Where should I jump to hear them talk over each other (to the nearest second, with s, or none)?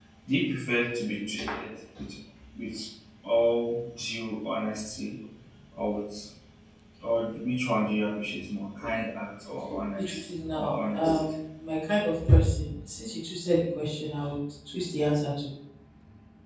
10 s